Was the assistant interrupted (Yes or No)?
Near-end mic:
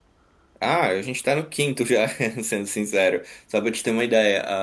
Yes